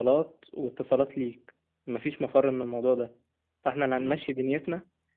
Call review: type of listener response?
listening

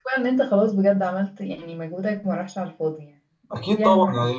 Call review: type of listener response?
taking over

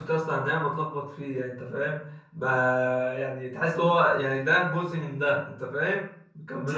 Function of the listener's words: taking over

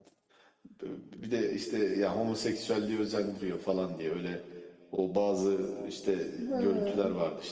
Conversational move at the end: listening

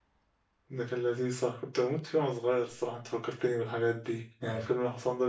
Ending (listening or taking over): listening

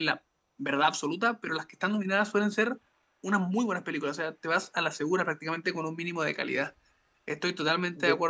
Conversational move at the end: listening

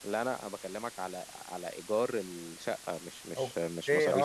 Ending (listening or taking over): taking over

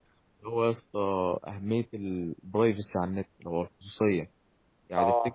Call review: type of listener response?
listening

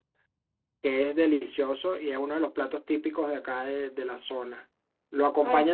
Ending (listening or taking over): listening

